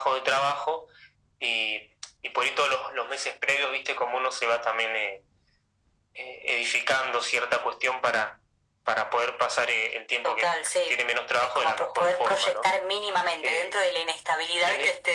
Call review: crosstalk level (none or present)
present